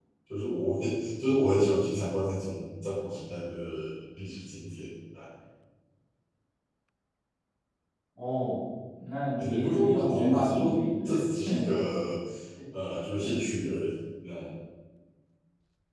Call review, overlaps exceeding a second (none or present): present